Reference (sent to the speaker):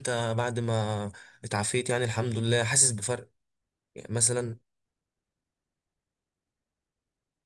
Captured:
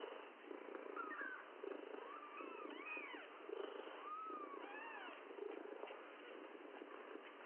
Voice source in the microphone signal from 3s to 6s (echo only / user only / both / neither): neither